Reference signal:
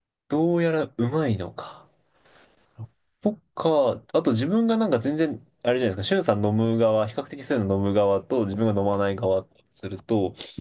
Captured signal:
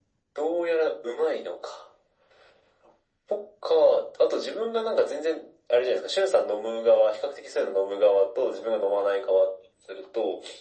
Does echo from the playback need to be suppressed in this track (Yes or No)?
Yes